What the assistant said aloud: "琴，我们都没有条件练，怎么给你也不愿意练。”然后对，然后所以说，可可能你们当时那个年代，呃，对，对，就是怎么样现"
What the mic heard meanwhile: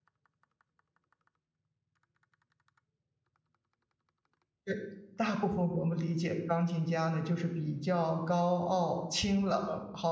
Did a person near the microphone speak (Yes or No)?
Yes